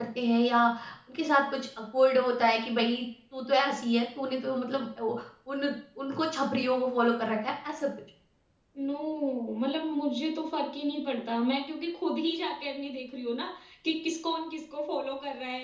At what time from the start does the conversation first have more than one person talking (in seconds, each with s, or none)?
none